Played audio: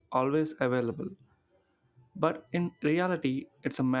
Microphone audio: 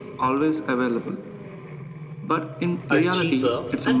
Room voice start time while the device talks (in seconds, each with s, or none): 2.9 s